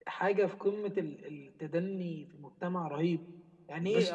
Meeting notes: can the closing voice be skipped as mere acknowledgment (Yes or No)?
Yes